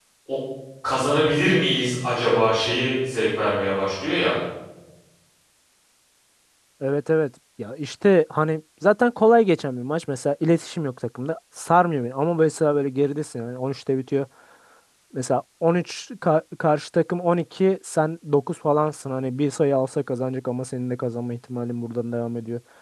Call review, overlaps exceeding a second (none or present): none